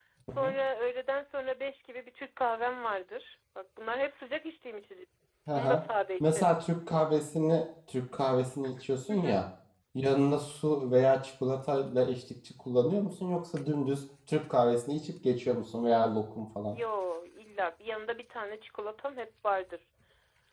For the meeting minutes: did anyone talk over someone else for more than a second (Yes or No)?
No